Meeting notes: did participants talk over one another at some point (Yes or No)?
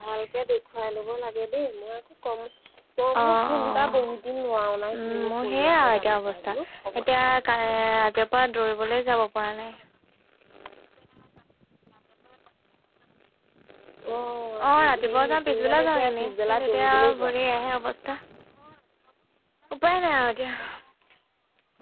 Yes